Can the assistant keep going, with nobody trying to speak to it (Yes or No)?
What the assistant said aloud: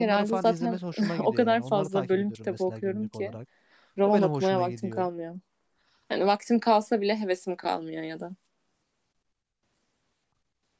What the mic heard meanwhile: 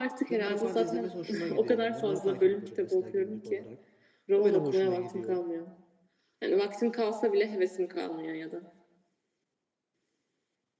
Yes